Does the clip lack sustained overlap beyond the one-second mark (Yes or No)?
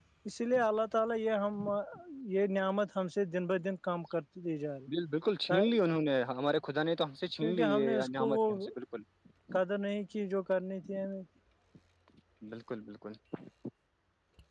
No